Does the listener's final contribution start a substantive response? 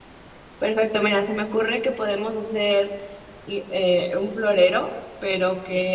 No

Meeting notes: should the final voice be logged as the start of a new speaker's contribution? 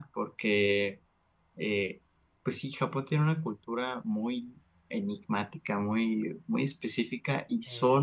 No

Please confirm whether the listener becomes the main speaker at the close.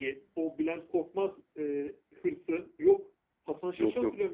No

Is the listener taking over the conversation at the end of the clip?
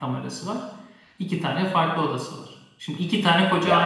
No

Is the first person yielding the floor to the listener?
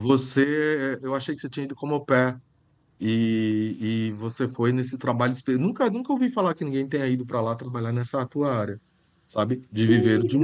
Yes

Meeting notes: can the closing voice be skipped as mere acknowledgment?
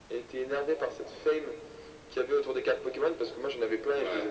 Yes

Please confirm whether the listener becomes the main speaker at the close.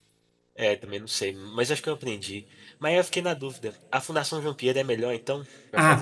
Yes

